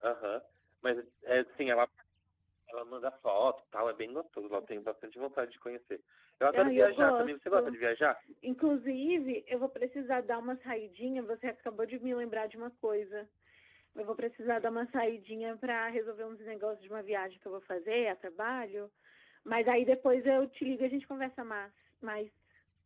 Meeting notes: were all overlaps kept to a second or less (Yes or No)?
No